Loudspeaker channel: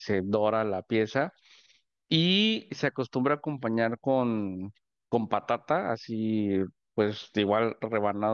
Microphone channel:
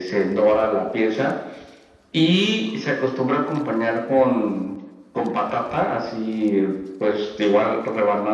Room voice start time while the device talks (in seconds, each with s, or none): none